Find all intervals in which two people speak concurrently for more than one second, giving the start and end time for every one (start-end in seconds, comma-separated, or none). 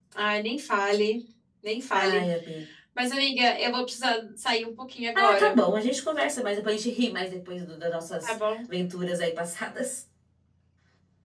none